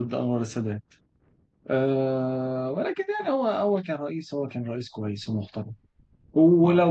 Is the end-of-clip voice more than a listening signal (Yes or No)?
No